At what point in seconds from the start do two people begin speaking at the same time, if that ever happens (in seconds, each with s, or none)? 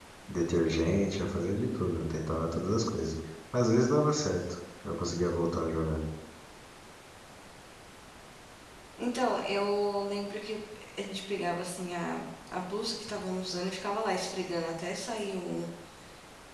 none